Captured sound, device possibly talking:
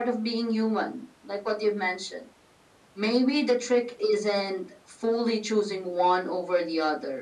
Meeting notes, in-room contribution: none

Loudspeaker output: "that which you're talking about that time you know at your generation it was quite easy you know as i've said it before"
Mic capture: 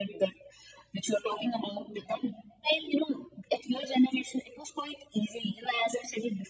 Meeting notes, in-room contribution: none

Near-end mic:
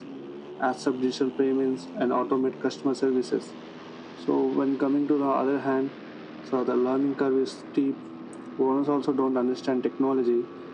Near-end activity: none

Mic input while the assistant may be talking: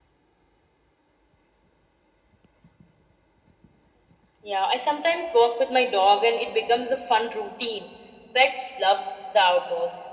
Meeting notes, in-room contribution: none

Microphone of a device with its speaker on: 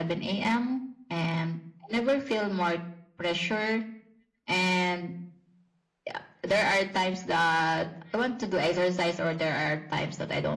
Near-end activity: none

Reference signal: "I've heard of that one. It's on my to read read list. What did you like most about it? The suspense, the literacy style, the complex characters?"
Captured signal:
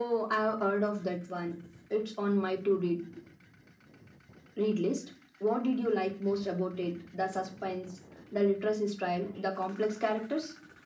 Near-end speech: none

